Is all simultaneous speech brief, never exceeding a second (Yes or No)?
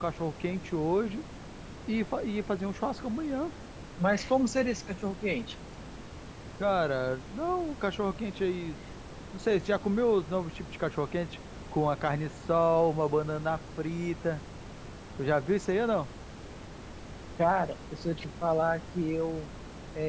Yes